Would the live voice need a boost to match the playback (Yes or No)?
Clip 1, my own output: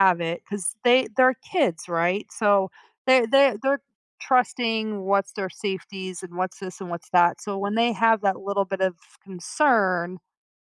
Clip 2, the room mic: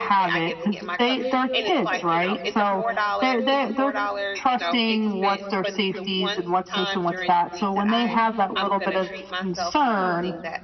Yes